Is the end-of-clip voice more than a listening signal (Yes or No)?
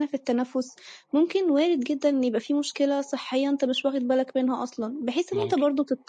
No